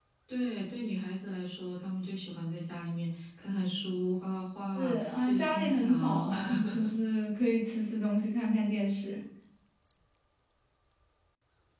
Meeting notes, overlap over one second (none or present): present